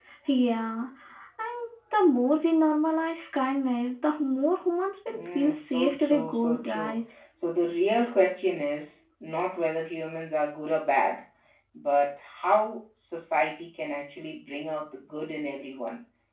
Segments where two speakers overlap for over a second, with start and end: 5.1-7.0

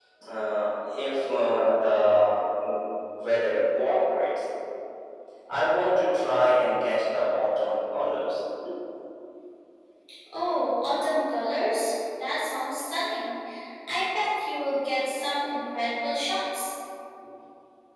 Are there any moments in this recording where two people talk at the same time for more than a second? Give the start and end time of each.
none

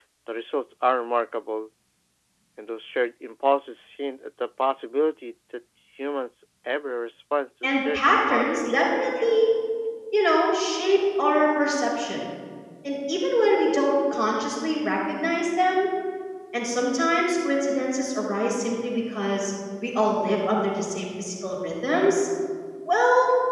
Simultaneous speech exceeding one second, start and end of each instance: 7.6-9.4

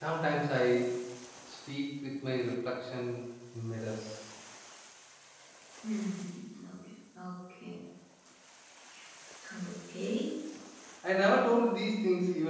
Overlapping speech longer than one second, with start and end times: none

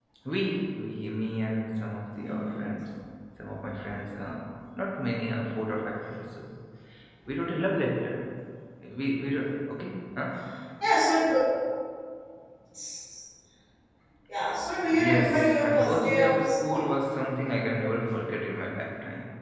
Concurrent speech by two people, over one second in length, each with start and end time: 14.9-16.9

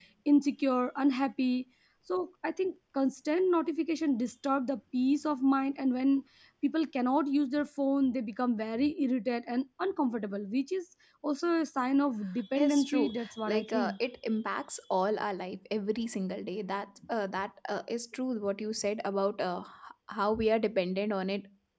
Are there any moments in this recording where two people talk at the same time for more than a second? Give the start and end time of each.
12.6-13.9

